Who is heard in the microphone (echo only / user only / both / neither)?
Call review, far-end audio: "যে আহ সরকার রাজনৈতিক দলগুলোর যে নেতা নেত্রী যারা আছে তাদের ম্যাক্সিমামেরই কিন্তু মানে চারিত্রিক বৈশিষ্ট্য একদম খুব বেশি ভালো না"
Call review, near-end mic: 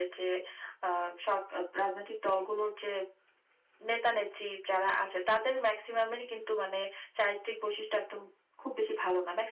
echo only